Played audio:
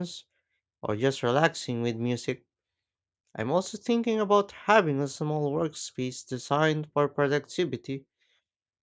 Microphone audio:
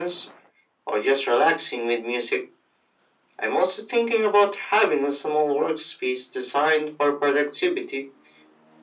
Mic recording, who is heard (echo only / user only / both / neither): echo only